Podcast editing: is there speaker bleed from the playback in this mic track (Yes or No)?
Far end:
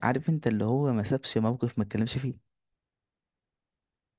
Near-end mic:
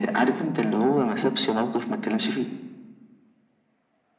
Yes